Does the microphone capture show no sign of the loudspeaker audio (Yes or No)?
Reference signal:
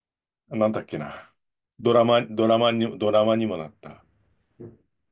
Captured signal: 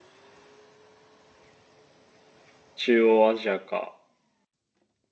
Yes